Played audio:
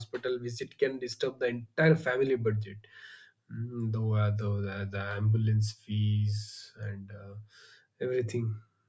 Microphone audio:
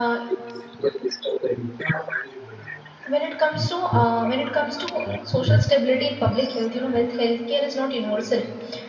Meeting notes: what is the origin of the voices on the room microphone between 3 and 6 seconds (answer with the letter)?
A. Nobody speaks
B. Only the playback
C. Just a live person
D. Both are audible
D